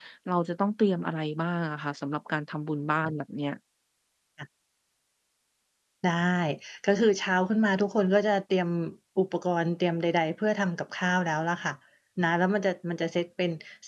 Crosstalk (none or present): none